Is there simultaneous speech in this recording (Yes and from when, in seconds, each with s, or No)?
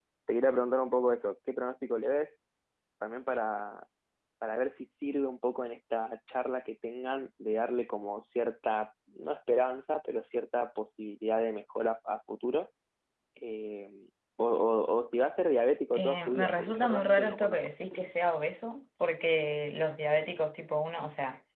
Yes, from 15.9 s